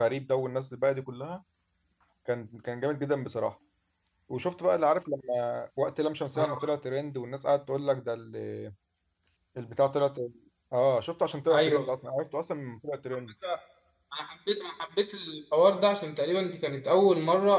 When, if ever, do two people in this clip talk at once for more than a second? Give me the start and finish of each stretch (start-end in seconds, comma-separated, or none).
none